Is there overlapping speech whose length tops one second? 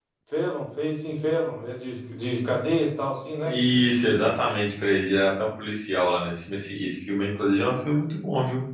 No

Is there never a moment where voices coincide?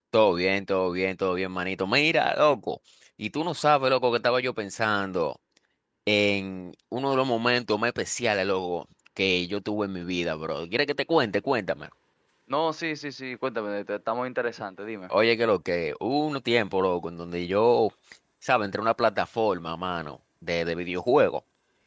Yes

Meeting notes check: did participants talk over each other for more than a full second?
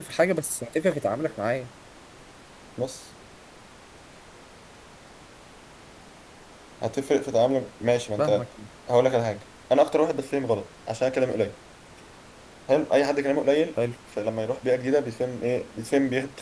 No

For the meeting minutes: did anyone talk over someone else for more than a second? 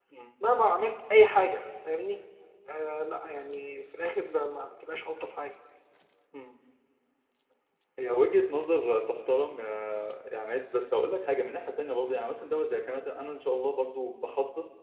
No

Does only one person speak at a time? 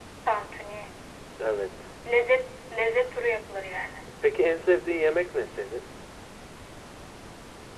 Yes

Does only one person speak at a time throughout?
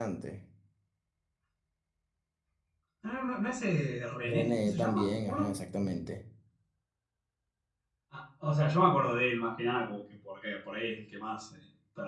No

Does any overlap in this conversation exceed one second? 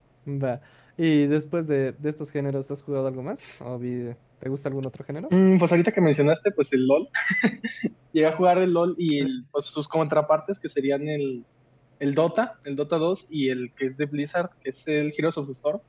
No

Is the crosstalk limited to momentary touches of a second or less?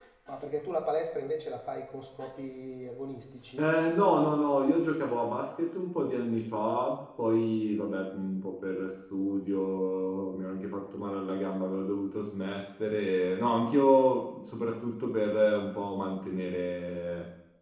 Yes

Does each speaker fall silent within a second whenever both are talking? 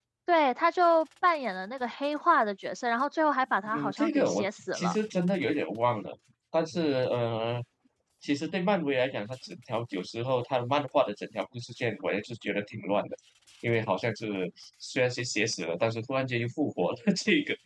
No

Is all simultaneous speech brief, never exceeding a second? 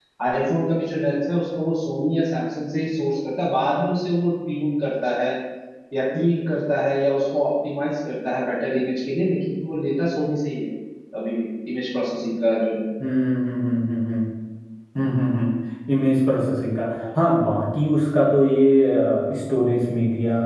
Yes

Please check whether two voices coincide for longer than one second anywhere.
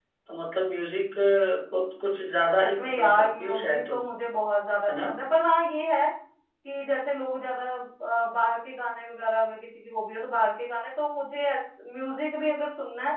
Yes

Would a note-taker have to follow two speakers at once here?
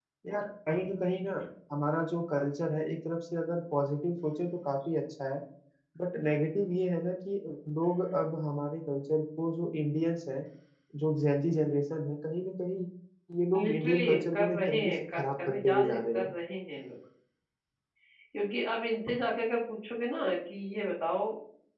Yes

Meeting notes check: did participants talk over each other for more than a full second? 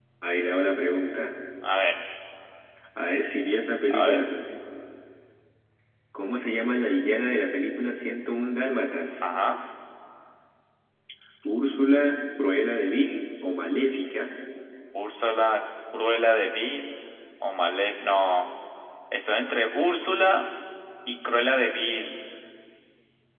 No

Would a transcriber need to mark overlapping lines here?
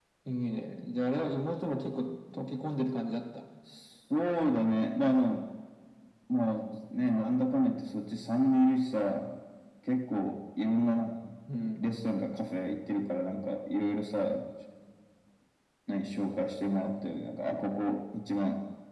No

